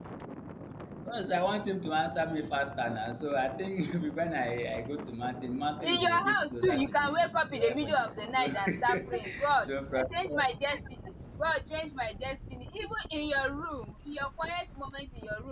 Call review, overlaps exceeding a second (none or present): present